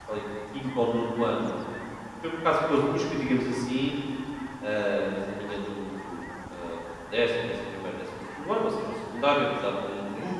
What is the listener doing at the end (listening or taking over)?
listening